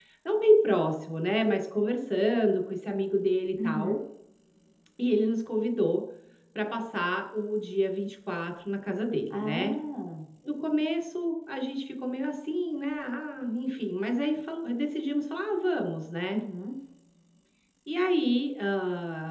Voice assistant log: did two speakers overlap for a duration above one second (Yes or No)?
No